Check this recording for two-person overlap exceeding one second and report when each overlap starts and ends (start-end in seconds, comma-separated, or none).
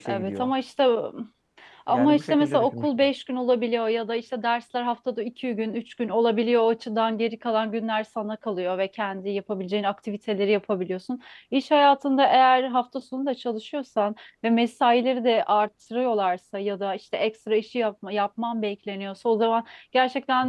1.9-3.1